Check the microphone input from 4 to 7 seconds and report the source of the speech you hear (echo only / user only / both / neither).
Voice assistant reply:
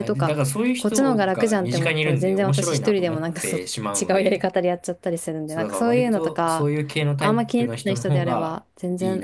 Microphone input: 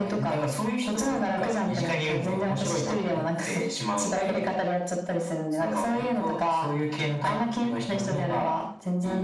echo only